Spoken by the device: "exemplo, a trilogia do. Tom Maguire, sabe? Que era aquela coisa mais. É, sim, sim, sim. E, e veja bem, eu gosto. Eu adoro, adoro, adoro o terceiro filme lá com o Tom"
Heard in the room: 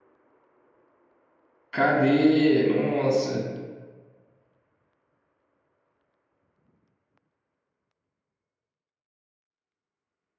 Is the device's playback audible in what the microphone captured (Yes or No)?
No